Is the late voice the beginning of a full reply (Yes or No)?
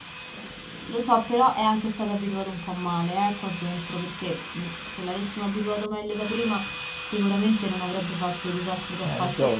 Yes